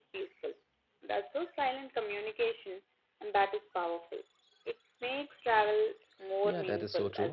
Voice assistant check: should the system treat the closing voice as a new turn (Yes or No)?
Yes